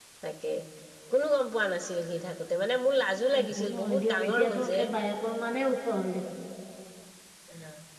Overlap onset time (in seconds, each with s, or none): 3.3 s